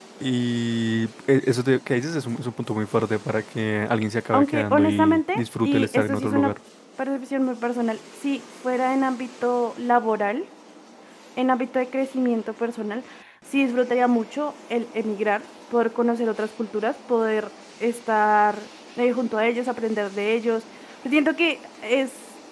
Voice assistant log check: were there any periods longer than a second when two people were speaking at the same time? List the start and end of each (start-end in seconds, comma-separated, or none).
4.3-6.5